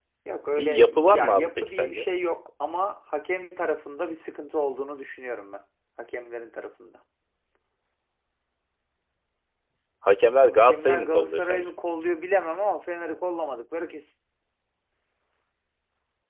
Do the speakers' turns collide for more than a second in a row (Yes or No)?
Yes